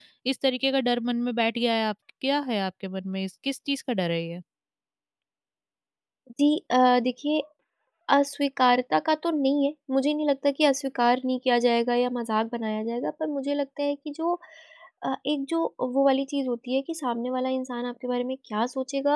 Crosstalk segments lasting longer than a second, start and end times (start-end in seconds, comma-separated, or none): none